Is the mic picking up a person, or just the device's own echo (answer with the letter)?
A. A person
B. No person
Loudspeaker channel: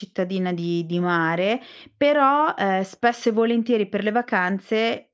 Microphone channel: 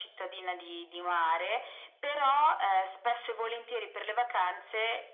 B